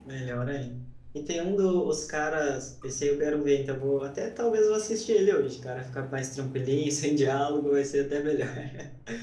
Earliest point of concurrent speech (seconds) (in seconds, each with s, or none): none